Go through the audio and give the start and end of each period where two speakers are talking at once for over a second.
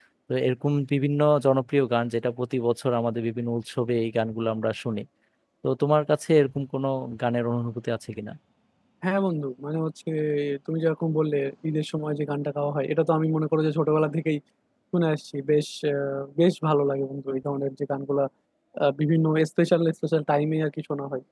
none

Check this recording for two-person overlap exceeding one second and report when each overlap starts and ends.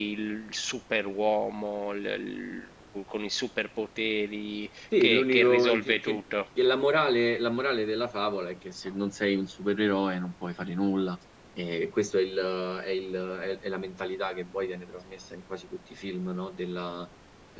5.0-6.2

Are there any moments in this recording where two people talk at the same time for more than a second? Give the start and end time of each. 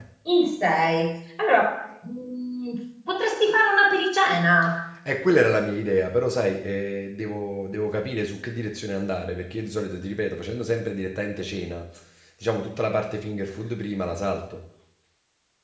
none

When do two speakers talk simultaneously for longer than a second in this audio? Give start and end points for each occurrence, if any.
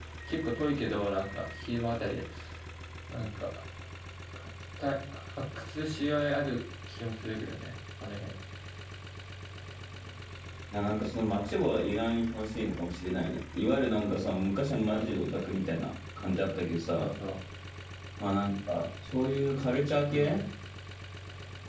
none

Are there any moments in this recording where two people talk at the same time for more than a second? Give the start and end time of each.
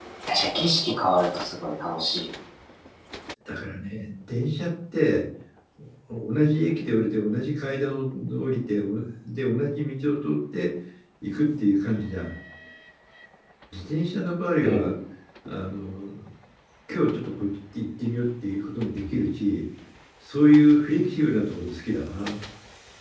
none

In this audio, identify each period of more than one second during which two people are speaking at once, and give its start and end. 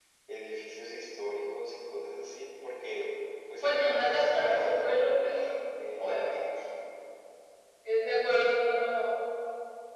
3.6-4.9

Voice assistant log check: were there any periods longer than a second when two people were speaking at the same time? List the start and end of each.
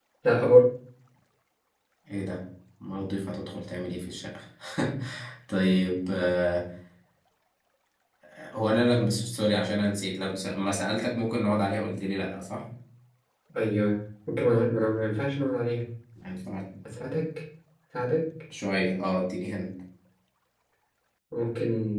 none

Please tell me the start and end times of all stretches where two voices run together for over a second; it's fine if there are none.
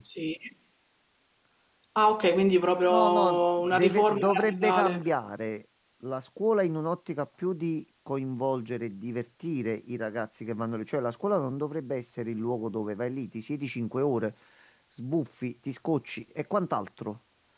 2.9-5.1

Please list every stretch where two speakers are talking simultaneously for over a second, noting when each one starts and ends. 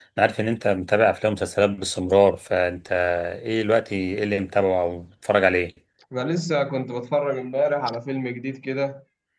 none

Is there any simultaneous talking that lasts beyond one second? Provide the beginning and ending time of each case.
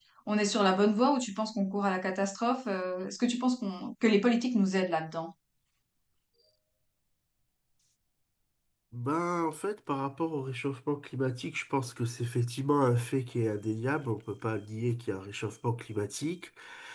none

